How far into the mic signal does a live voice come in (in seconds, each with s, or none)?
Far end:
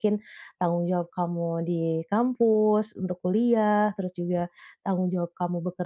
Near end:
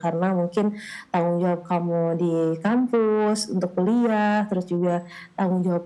none